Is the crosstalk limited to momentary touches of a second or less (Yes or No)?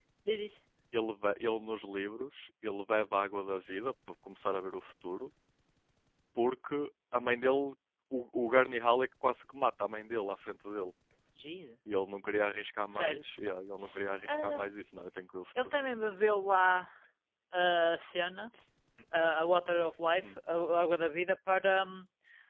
Yes